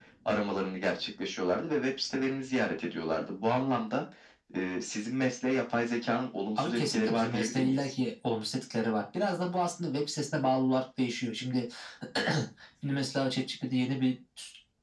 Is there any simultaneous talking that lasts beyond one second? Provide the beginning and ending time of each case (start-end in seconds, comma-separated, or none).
6.6-7.8